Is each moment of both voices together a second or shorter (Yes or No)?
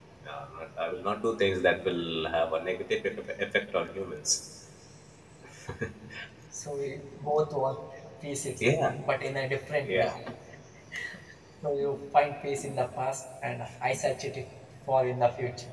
Yes